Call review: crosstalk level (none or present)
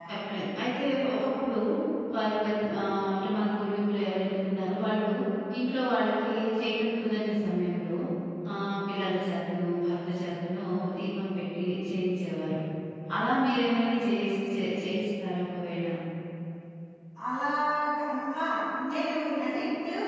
none